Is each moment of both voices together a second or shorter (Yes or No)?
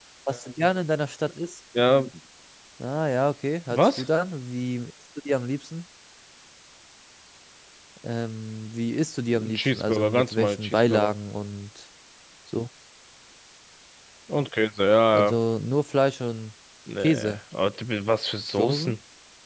No